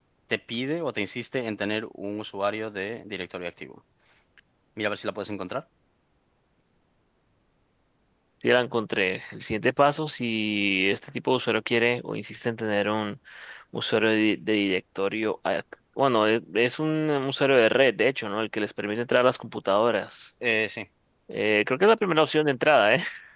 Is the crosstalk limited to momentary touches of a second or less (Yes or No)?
Yes